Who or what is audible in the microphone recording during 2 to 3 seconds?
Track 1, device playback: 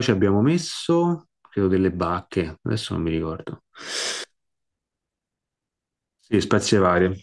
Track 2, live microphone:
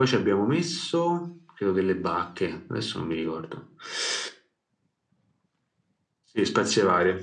echo only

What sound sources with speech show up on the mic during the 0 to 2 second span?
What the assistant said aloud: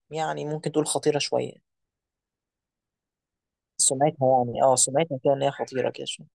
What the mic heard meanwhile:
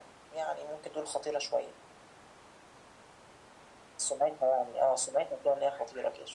echo only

